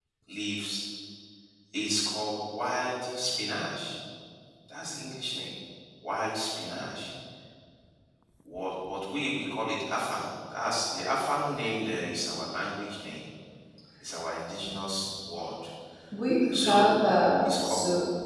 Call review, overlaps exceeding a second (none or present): none